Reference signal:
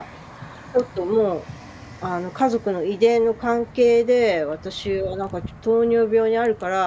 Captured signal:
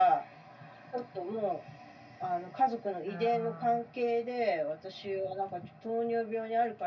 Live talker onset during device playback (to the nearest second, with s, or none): 3 s